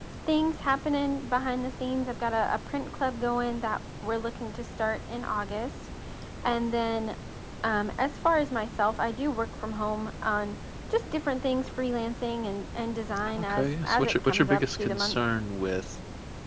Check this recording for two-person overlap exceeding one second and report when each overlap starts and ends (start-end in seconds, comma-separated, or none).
13.4-15.2